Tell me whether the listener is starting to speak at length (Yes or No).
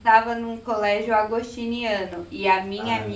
No